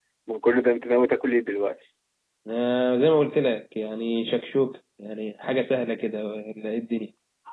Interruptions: none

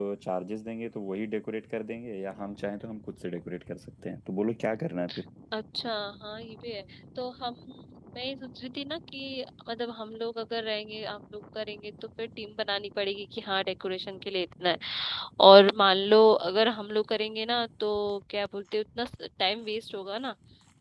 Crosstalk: none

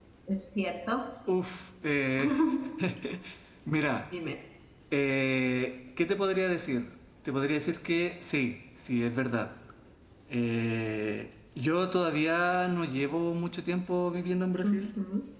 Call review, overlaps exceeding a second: none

